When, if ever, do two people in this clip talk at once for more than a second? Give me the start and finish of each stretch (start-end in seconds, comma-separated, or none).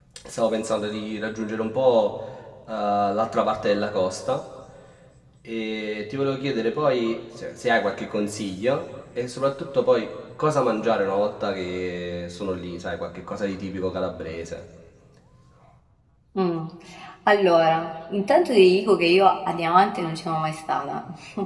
none